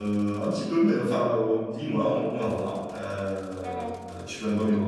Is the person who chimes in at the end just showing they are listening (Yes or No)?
No